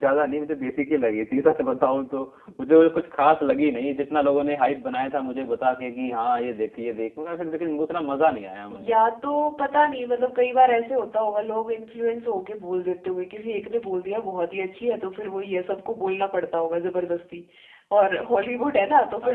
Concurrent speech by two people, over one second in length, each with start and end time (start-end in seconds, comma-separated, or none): none